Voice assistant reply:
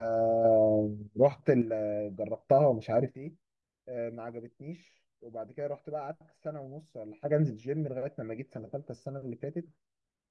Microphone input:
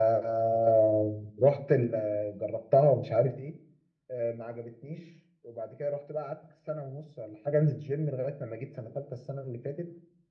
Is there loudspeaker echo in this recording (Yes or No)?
Yes